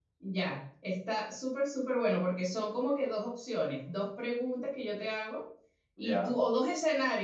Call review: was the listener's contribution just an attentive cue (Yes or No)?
Yes